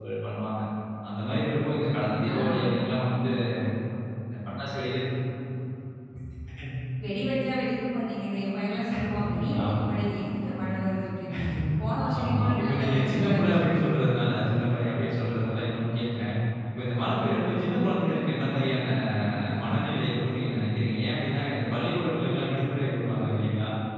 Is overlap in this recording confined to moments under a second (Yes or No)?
No